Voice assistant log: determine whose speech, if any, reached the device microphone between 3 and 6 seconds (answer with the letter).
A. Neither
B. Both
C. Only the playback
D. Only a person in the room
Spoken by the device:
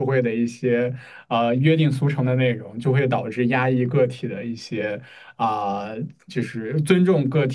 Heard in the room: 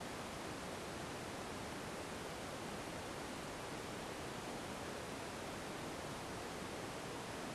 A